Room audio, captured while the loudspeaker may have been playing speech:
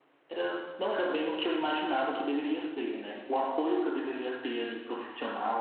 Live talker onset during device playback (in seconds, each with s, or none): none